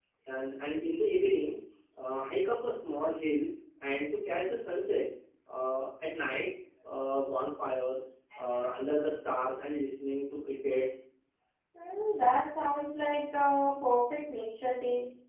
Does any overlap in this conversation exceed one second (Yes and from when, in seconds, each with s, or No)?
No